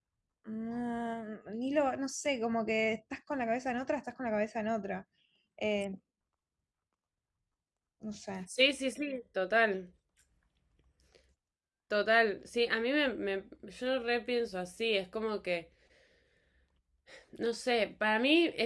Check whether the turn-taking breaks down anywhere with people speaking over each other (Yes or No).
No